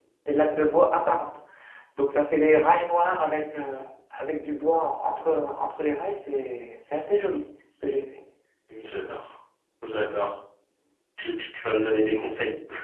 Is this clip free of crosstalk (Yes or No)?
Yes